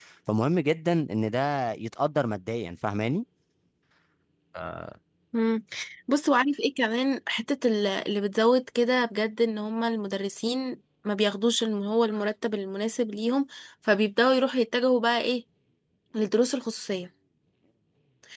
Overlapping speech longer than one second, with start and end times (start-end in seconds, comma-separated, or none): none